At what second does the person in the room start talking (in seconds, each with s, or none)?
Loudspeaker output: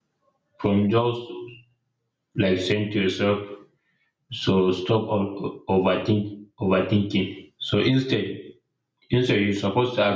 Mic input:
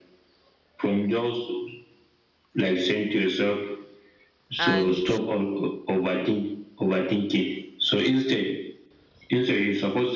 4.6 s